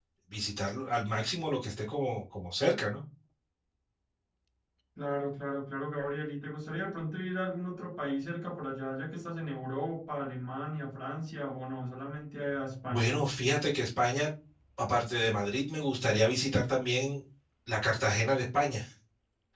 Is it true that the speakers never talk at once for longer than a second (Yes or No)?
Yes